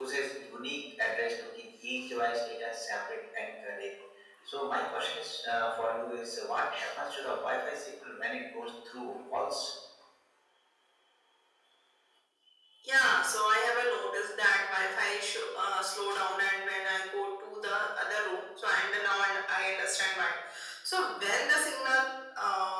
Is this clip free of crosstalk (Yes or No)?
Yes